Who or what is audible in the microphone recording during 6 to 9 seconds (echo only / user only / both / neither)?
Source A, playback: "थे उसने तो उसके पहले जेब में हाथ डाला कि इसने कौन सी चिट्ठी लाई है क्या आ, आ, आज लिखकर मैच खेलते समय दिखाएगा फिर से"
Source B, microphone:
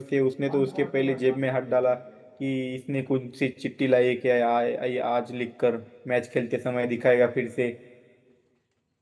echo only